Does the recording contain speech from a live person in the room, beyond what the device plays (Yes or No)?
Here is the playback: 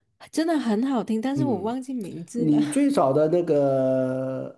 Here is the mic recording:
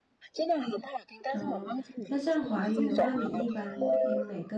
Yes